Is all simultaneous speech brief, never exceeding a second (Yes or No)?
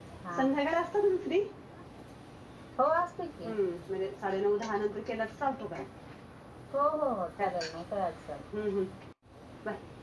Yes